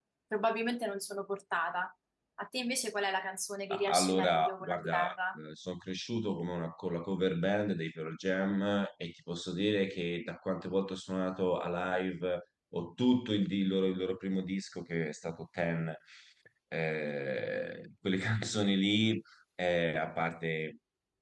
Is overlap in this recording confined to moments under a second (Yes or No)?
No